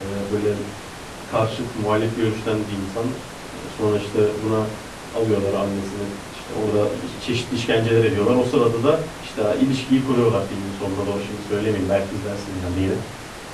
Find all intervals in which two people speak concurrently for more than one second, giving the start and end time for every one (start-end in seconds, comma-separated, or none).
none